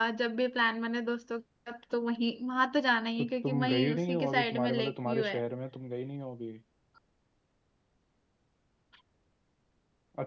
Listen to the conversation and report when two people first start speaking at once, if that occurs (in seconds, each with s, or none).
3.2 s